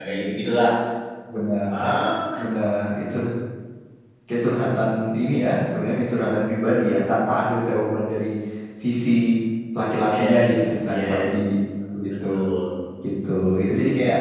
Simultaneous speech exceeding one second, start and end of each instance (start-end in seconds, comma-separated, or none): 10.1-11.3